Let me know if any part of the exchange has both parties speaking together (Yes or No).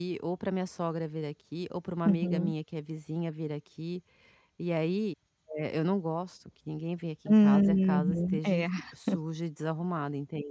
Yes